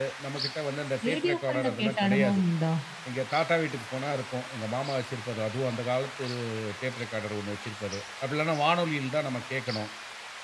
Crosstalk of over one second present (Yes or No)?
Yes